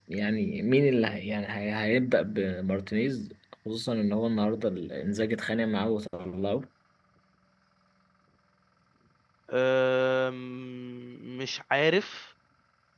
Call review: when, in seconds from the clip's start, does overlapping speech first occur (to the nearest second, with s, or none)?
none